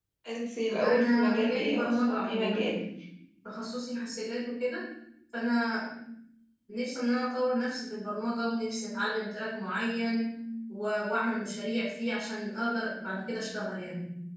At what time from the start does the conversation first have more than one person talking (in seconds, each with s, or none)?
0.8 s